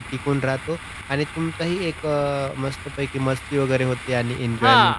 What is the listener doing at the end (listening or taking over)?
taking over